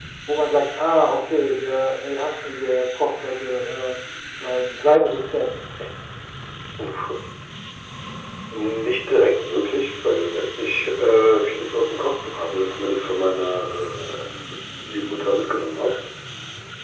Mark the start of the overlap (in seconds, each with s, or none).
none